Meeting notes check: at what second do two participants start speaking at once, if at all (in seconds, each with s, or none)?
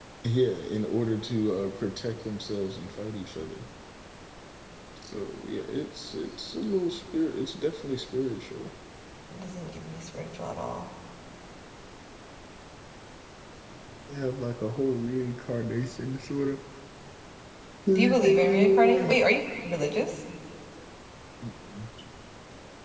17.9 s